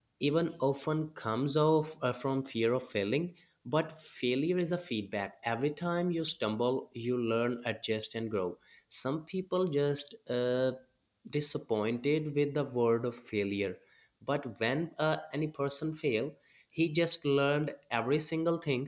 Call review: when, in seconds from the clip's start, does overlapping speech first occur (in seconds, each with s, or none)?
none